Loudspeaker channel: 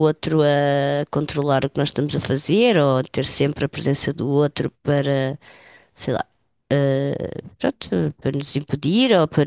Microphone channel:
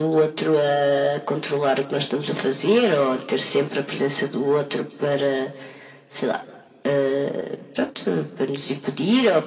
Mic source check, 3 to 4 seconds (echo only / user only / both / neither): echo only